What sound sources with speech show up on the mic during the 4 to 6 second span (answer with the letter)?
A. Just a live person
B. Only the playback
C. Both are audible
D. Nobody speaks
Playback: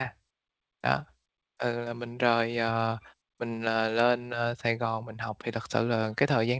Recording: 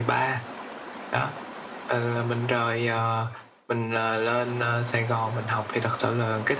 B